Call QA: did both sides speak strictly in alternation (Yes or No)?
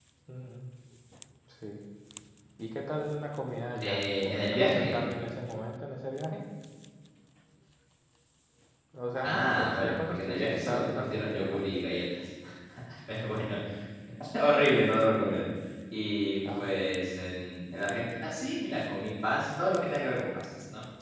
No